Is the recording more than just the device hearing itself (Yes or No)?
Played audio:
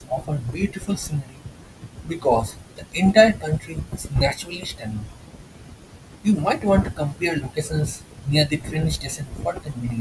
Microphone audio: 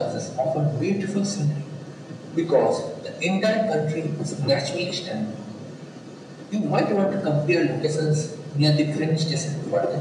No